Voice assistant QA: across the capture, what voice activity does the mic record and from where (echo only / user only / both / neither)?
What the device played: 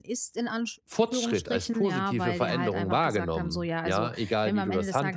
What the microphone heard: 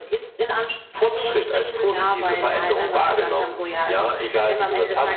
echo only